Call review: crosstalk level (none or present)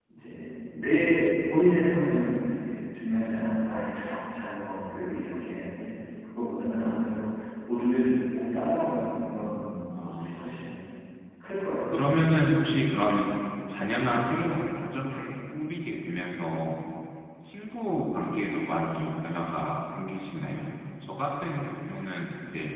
present